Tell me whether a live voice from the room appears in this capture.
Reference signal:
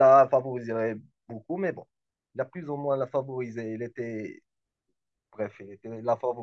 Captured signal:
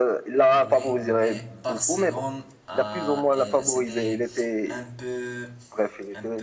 Yes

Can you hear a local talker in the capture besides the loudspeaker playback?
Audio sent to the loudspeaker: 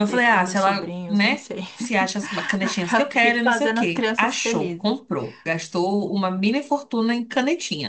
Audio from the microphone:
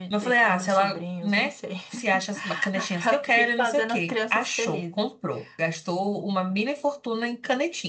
No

